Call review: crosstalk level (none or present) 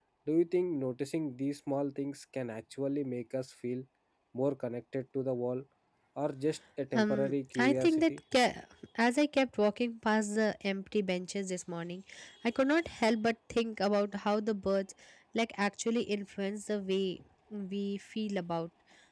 present